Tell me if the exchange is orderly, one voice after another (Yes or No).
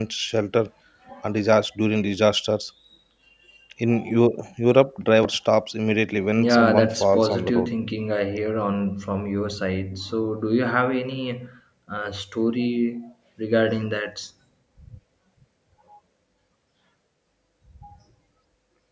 No